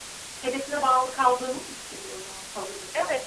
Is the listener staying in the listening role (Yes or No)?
No